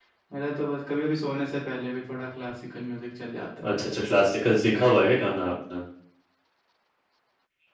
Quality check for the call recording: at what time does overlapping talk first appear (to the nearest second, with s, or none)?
none